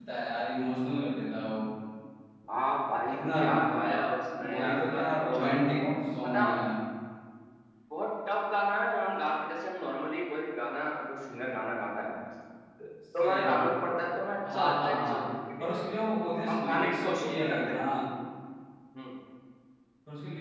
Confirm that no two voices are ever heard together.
No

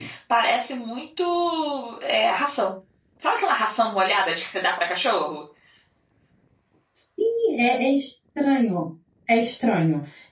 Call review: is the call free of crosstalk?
Yes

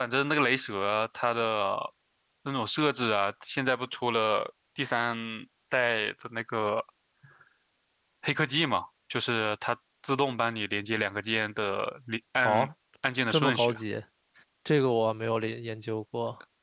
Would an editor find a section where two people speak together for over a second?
No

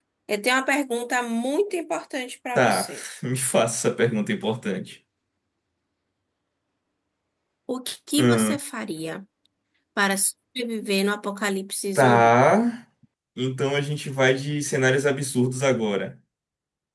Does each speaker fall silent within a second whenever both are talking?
Yes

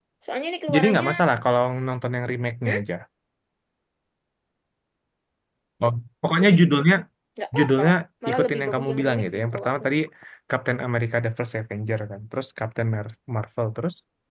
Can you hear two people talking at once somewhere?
Yes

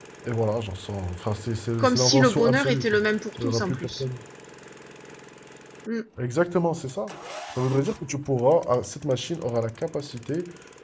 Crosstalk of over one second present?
Yes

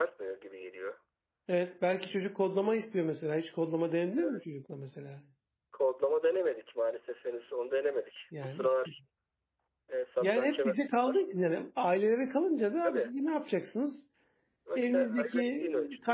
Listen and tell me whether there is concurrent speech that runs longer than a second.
Yes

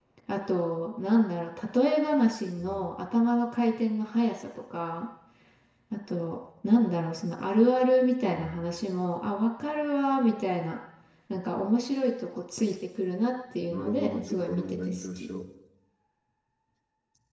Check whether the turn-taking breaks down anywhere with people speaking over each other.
Yes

